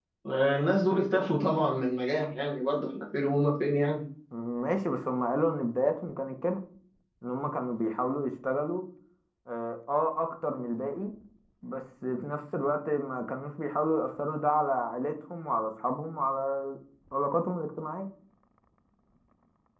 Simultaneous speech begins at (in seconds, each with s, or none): none